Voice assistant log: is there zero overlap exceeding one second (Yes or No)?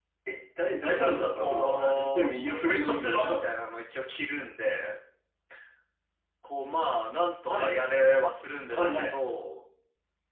No